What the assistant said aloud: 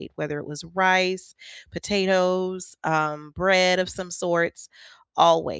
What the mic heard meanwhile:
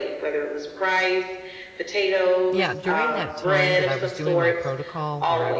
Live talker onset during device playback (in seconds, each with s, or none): 2.5 s